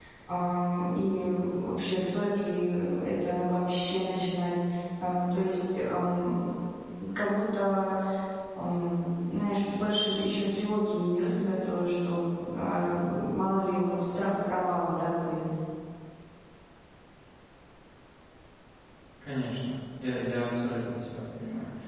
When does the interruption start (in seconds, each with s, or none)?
none